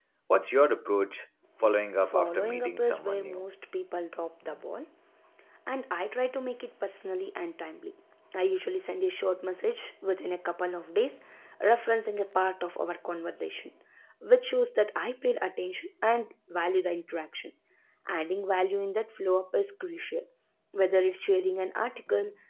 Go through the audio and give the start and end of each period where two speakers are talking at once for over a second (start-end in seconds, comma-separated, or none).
2.0-3.4